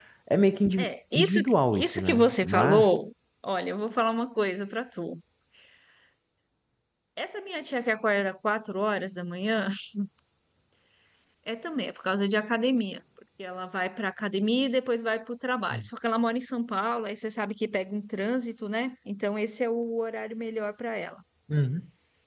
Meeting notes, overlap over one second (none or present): present